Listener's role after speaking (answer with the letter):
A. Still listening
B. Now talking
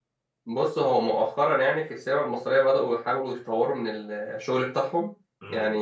A